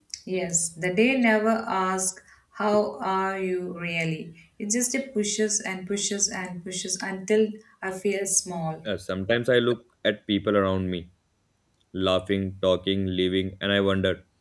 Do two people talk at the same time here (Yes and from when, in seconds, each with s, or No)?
No